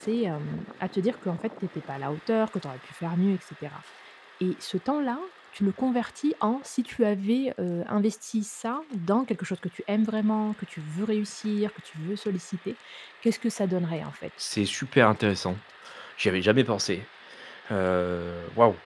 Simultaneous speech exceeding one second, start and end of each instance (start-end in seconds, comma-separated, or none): none